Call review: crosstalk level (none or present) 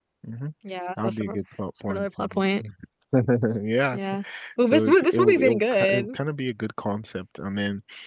present